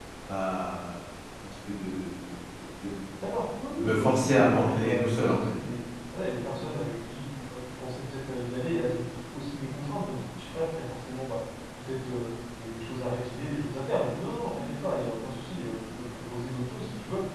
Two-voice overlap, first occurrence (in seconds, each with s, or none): 3.8 s